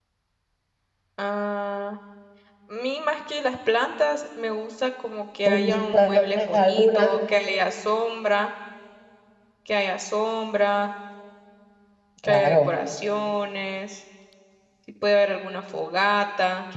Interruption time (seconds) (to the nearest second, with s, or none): 5 s